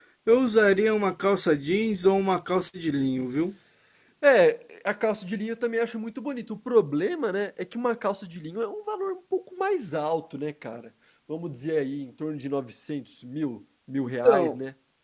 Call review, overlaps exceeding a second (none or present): none